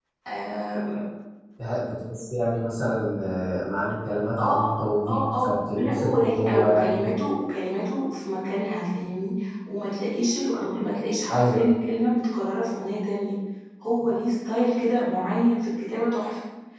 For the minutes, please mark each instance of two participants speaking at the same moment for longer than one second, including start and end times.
5.1-7.1

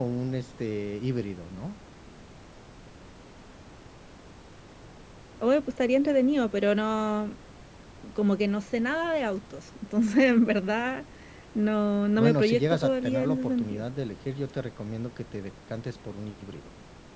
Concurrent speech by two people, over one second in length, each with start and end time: 12.2-13.8

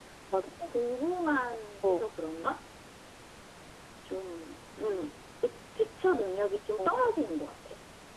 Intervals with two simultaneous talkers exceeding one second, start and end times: none

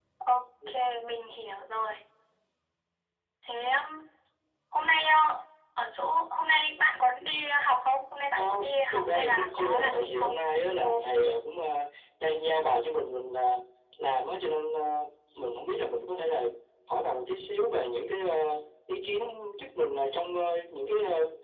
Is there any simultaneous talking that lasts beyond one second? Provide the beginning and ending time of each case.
8.9-10.3

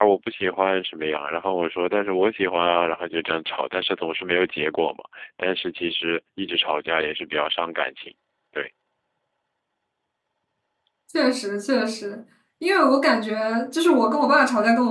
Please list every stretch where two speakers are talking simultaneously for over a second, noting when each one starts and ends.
none

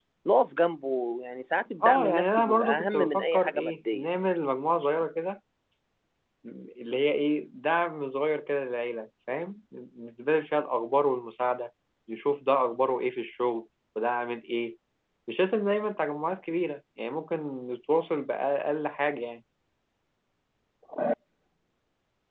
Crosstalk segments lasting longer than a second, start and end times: 1.8-4.1

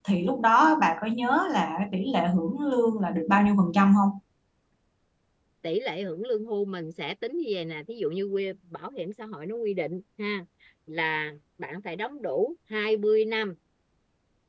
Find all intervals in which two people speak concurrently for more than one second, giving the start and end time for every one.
none

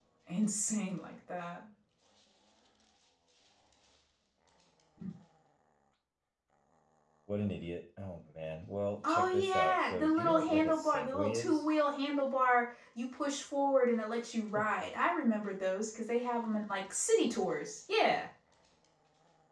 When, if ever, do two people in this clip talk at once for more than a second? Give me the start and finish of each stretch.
9.0-11.6

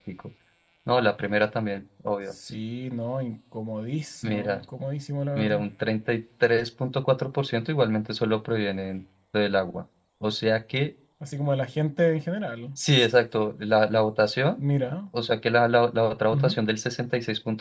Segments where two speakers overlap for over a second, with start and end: none

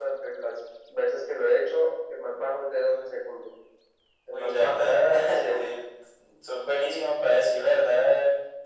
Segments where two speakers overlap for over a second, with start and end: 4.3-5.6

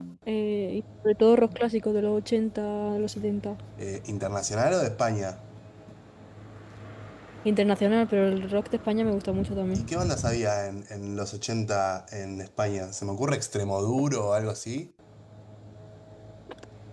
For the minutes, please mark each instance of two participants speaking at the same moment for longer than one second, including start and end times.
none

